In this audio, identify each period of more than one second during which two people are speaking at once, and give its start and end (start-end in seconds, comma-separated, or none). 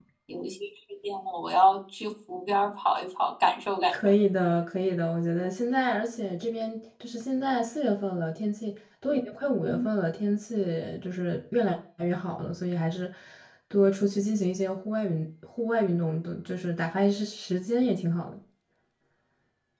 none